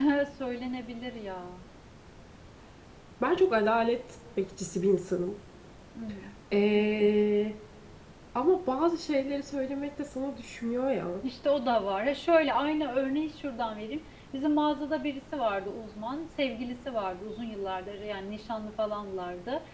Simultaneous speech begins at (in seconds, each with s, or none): none